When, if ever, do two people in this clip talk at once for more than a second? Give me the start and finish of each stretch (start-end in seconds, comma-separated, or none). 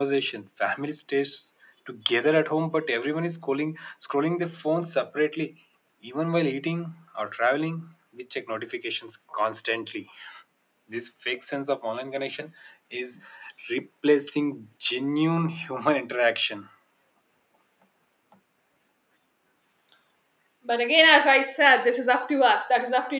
none